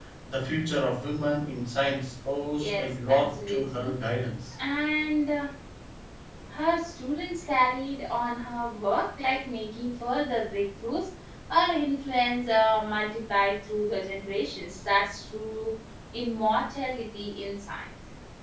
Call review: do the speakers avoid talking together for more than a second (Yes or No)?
No